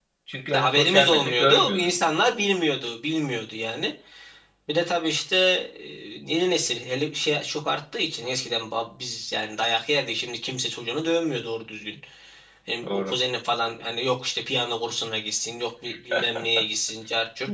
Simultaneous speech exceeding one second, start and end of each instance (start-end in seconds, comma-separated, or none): 0.5-1.9